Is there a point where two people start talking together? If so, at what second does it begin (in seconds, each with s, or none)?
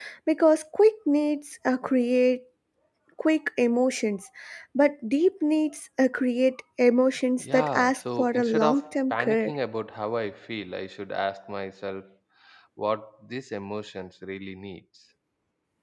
7.4 s